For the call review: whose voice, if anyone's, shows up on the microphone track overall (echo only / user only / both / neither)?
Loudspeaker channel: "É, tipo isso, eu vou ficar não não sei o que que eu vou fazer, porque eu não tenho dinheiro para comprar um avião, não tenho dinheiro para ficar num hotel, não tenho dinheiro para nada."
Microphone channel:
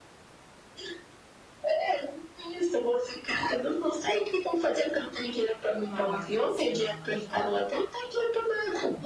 both